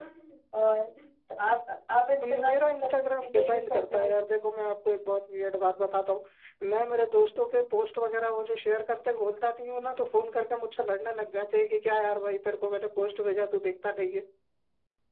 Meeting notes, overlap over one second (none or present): present